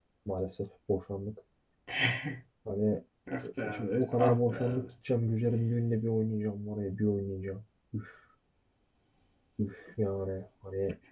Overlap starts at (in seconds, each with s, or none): 3.6 s